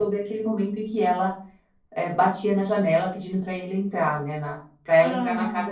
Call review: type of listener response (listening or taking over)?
listening